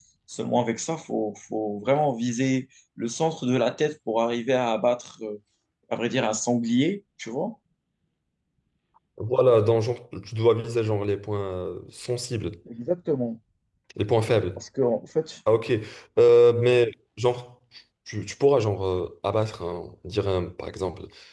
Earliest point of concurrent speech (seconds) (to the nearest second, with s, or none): none